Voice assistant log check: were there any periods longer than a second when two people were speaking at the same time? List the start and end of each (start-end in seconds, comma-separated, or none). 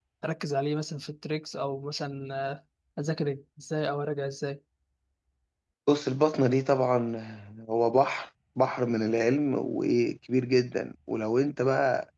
none